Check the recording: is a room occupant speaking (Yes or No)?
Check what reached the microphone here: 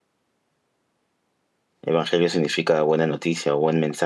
Yes